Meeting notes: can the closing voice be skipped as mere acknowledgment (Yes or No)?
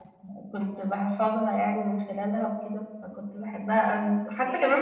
Yes